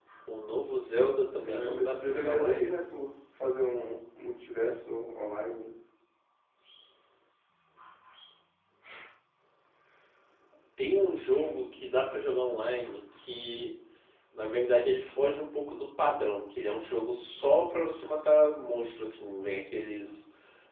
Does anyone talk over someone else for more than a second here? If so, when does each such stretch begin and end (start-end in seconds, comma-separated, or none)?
1.5-2.8